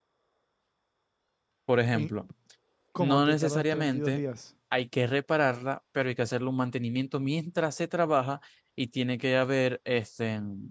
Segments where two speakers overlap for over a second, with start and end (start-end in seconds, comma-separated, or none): 3.0-4.2